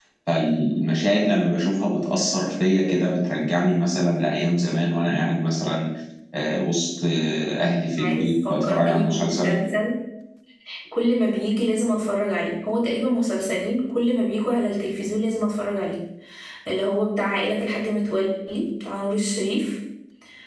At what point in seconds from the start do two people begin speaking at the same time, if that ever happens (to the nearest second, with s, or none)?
8 s